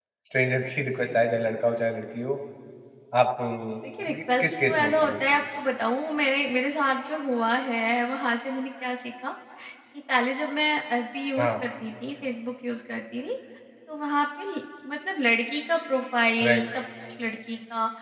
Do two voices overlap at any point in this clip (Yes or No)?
Yes